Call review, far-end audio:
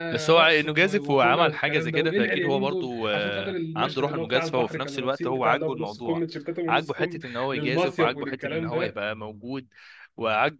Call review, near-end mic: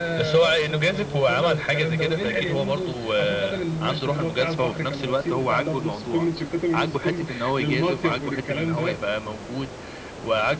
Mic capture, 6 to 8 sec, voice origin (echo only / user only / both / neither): echo only